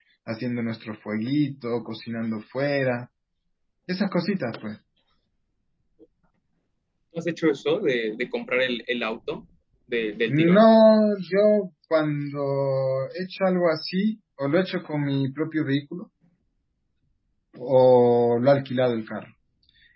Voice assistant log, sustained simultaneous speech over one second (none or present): none